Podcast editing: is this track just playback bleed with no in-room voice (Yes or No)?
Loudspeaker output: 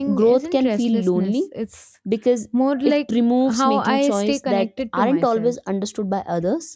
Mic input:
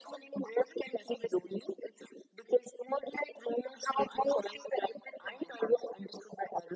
Yes